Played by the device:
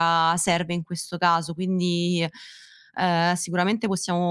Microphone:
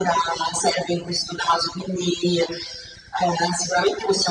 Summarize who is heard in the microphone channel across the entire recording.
echo only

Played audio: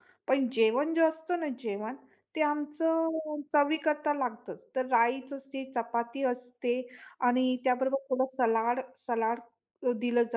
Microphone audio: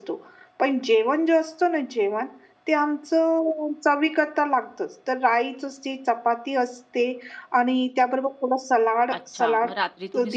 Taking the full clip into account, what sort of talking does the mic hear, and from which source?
both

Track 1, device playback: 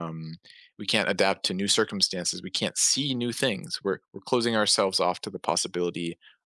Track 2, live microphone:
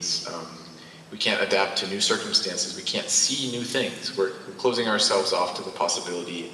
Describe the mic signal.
echo only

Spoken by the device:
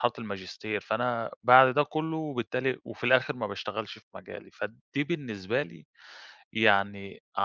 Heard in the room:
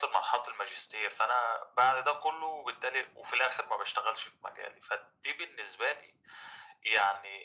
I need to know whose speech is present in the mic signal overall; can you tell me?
echo only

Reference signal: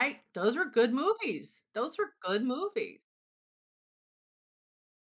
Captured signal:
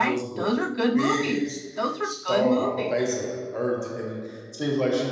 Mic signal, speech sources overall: both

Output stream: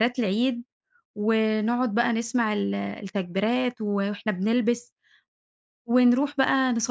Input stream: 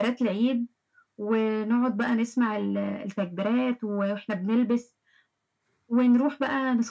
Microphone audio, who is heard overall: echo only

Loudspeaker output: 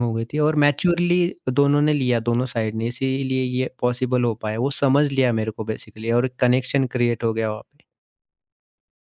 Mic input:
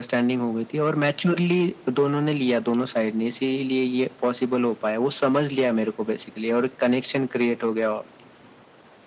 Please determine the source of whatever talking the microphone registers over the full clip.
echo only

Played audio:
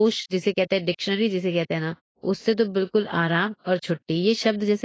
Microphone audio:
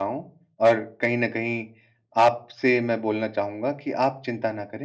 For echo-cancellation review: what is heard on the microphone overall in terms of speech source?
user only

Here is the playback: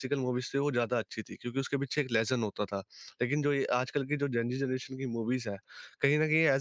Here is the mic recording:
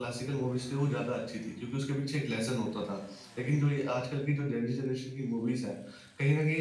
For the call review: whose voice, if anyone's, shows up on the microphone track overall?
echo only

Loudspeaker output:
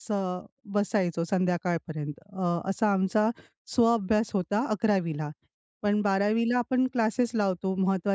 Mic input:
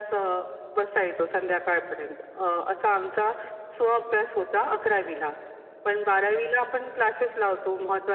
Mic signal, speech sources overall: echo only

